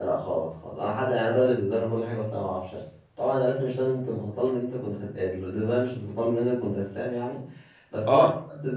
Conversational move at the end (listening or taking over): listening